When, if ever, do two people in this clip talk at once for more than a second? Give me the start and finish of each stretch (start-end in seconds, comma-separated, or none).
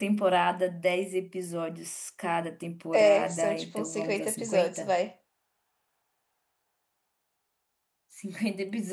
2.9-4.9